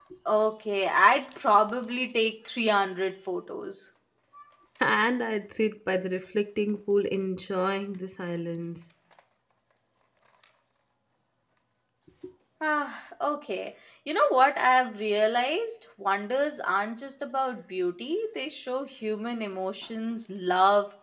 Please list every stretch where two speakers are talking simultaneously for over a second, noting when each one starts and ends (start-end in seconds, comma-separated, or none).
none